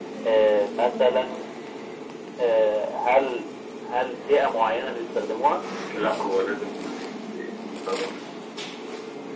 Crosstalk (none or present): none